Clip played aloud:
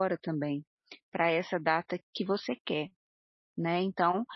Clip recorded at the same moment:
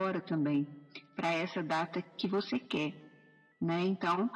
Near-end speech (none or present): none